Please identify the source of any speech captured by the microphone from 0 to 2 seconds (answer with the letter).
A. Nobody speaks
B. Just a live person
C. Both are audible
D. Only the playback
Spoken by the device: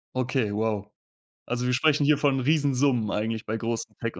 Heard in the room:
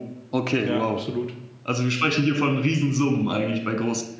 C